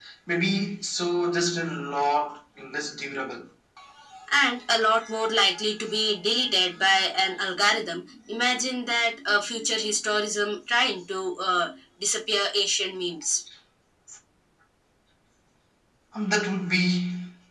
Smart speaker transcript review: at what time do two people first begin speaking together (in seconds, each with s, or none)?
none